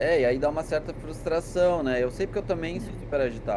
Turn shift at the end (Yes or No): No